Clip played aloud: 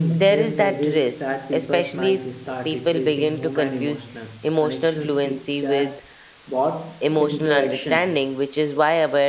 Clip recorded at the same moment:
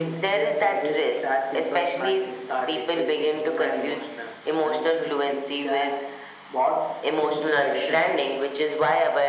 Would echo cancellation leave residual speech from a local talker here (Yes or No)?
No